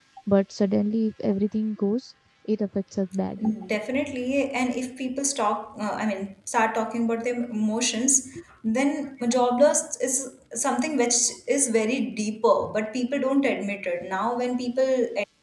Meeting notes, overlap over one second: none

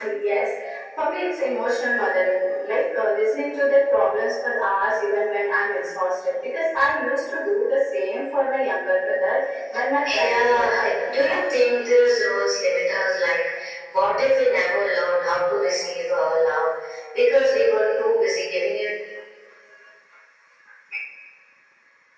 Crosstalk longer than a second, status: present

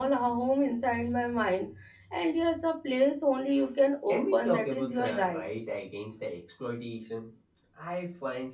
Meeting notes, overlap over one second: present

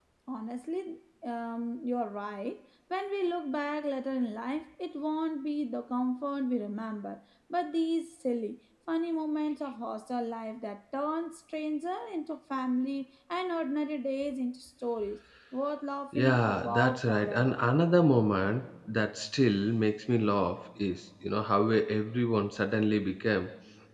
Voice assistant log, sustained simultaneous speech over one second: present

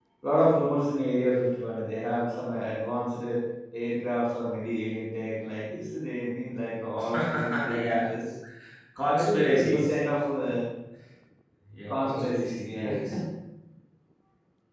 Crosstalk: present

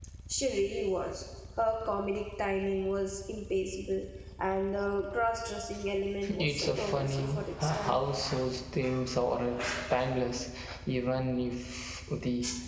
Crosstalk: present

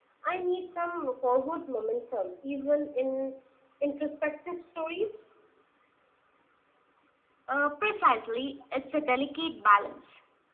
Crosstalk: none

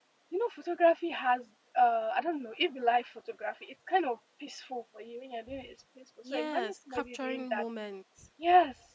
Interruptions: present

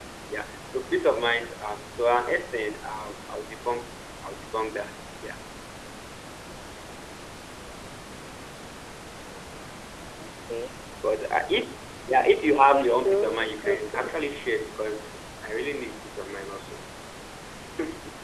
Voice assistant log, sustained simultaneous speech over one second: present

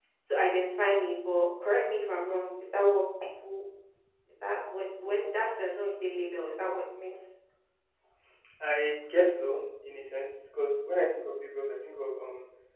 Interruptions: none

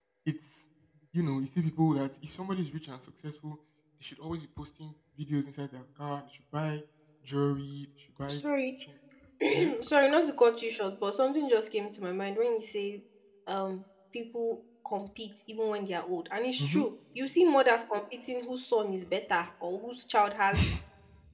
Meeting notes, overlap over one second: none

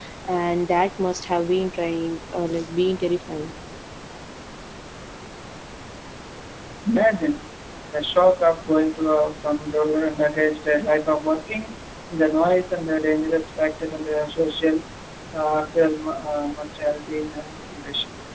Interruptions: none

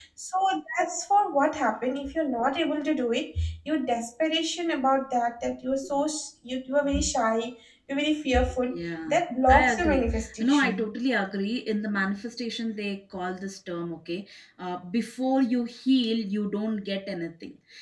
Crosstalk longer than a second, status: present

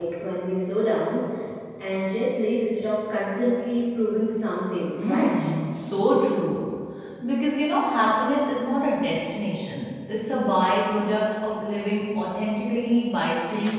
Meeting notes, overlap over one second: none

